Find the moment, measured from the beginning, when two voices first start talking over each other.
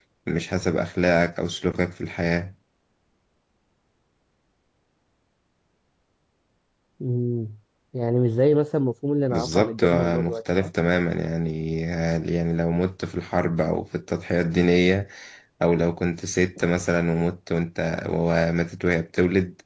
9.3 s

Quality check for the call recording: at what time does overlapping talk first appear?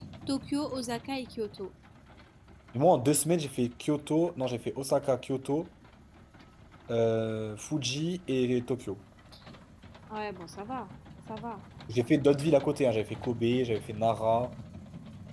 none

